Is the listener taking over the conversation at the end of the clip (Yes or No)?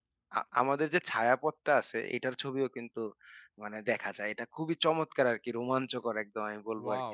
Yes